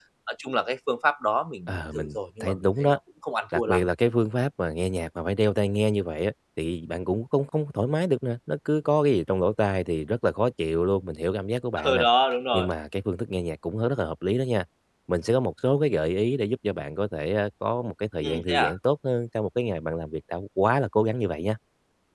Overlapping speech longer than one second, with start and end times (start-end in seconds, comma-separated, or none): 1.7-3.0